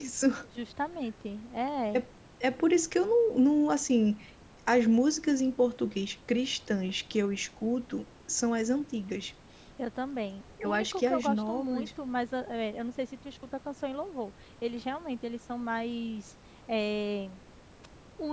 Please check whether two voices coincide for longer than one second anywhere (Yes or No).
Yes